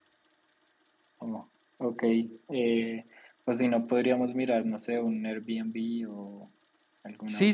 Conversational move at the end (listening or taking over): taking over